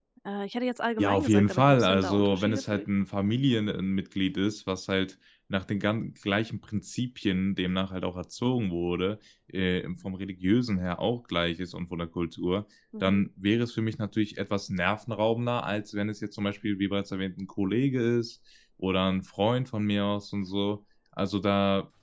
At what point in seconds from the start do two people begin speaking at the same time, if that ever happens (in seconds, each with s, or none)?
1.0 s